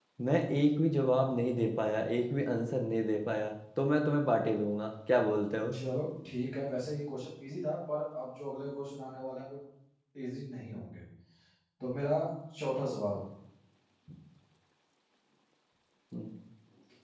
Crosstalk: none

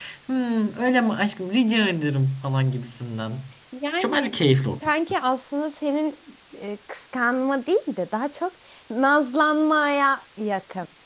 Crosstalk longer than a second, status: none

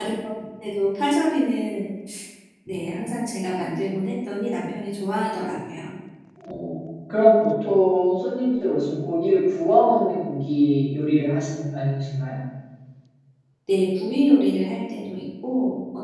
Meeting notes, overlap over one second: none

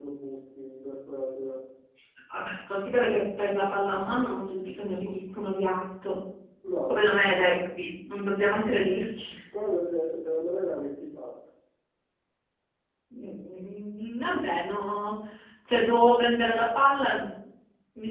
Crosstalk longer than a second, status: none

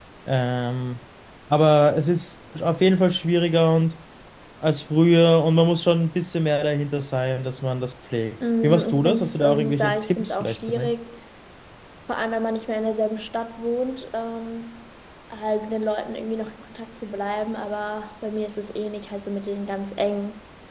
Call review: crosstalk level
present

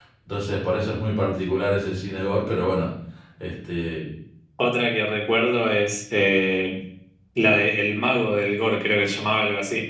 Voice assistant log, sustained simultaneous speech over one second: none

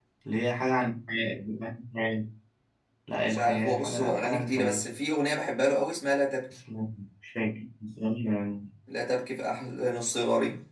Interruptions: present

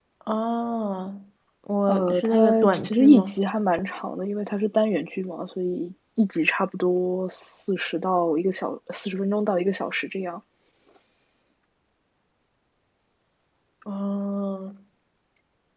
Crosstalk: present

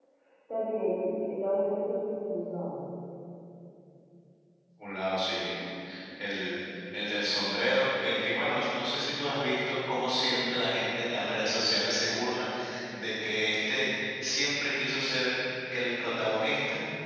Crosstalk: none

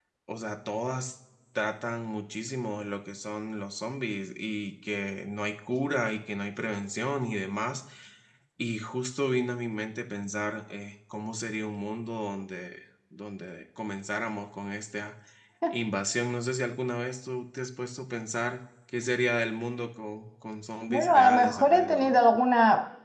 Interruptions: present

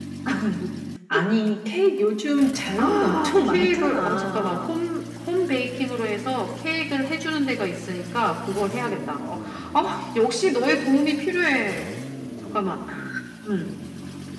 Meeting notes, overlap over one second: present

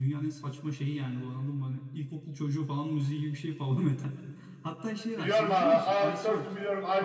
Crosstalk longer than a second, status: present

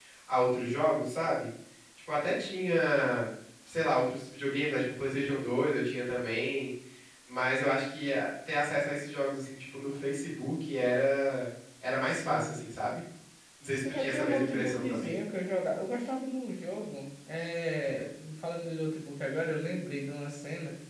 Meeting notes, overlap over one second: present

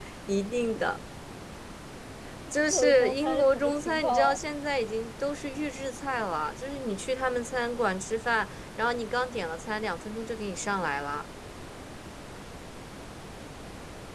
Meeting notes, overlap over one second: present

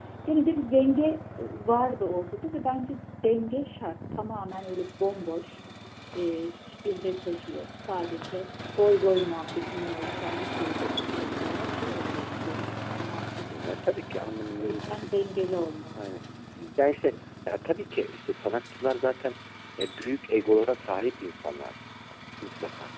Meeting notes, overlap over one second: none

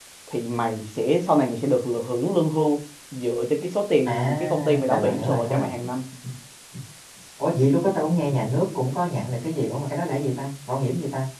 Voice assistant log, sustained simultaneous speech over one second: present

